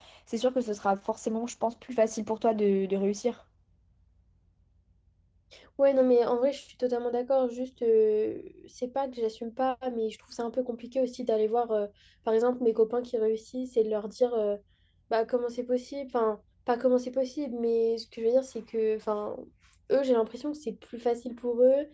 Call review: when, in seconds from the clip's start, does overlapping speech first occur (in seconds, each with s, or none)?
none